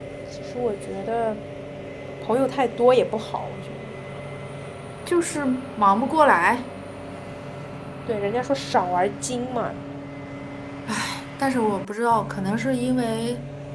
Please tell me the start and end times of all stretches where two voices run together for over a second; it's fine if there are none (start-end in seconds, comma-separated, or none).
none